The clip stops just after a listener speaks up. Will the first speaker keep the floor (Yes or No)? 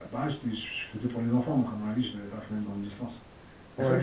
No